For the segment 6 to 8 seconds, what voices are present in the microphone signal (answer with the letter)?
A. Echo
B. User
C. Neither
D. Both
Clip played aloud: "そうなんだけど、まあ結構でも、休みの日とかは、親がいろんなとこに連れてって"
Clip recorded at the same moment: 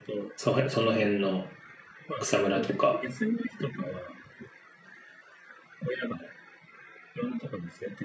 A